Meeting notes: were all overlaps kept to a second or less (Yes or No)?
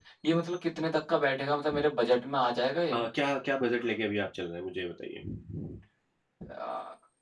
Yes